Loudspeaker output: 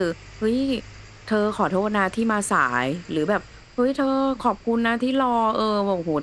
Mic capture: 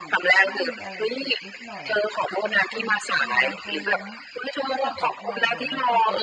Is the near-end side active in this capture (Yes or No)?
Yes